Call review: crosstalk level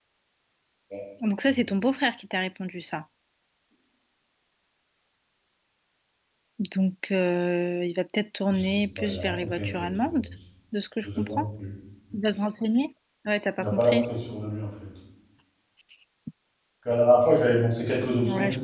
present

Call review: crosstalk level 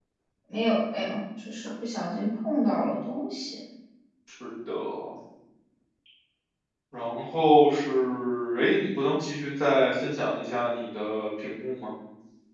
none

